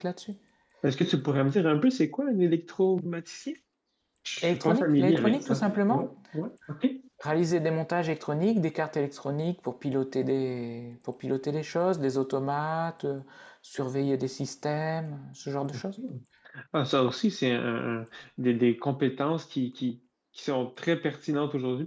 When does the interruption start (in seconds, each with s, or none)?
4.4 s